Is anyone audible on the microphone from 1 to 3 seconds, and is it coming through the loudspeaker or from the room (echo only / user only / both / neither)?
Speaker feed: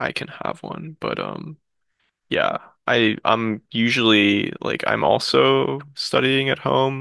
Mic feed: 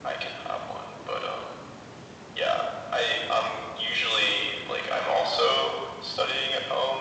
echo only